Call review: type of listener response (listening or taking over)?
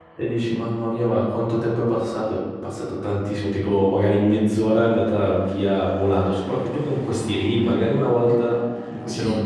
listening